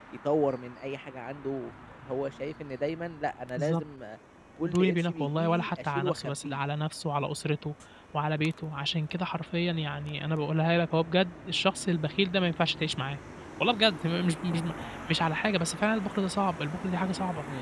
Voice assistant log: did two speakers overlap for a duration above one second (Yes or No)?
Yes